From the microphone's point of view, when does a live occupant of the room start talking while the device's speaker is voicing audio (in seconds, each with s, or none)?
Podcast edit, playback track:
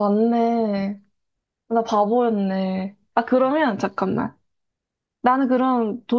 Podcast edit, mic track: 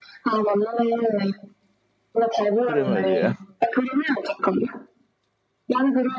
2.6 s